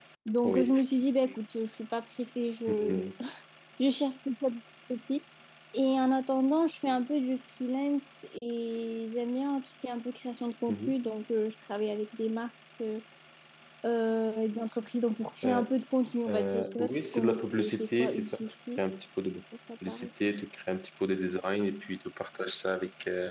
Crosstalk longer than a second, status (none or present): present